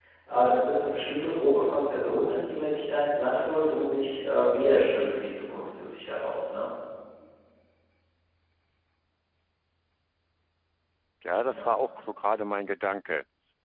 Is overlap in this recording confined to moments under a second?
Yes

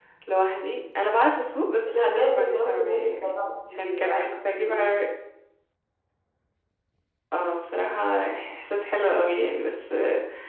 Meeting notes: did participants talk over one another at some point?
Yes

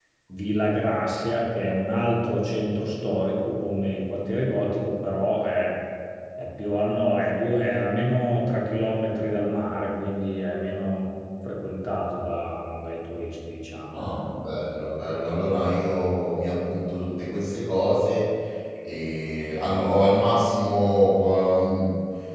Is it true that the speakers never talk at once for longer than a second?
Yes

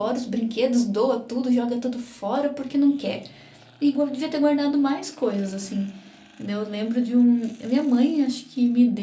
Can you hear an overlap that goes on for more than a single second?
No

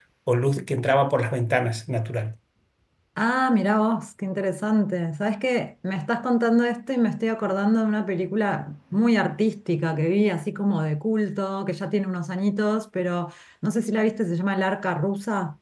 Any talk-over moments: No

